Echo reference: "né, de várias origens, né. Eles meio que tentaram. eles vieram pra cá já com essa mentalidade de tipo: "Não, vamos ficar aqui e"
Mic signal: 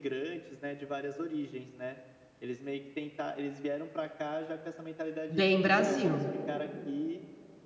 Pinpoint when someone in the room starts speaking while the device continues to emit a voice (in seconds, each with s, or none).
5.3 s